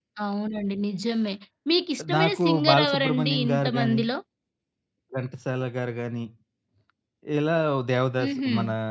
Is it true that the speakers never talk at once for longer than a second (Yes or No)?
No